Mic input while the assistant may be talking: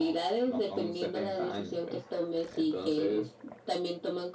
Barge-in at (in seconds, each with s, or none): none